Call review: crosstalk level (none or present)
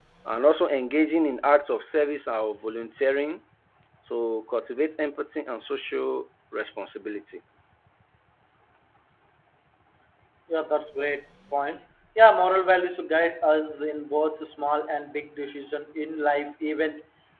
none